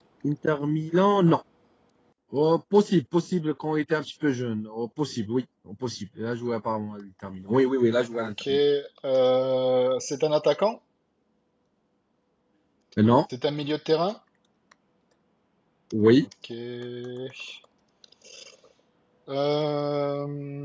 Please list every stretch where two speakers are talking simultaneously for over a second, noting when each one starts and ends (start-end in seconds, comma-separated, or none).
none